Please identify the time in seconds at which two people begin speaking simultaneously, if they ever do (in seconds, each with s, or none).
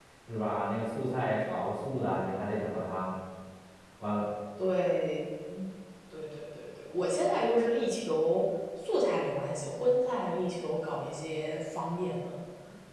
none